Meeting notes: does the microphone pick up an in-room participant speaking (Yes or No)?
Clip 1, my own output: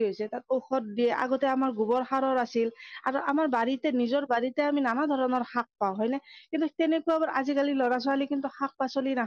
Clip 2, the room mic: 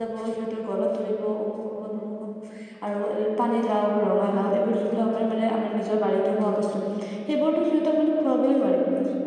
Yes